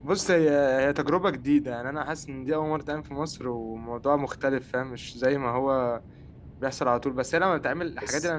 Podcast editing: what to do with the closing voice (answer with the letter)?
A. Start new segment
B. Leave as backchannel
B